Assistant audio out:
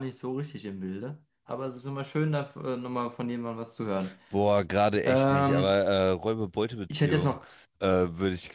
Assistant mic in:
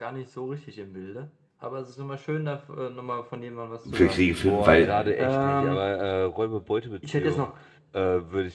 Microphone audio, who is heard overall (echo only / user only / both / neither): both